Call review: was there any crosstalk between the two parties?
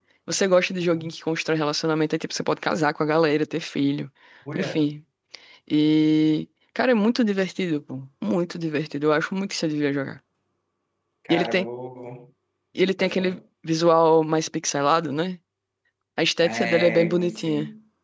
Yes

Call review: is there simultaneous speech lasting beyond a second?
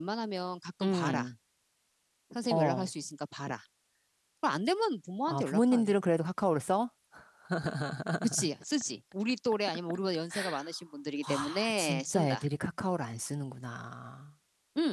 Yes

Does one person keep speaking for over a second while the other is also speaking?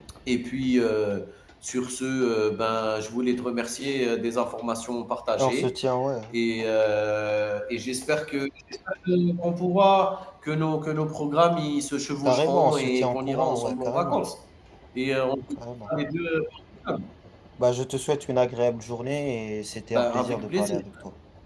Yes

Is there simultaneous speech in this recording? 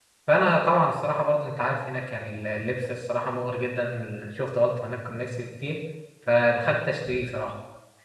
No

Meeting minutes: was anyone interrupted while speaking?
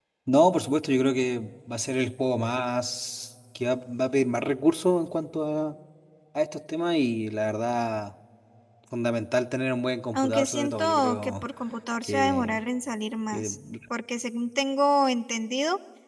Yes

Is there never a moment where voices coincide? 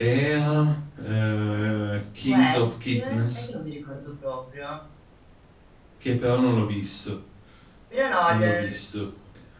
No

